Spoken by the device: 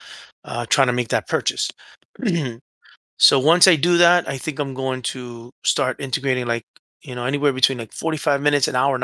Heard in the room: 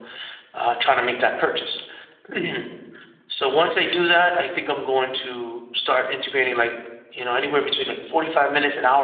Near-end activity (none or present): none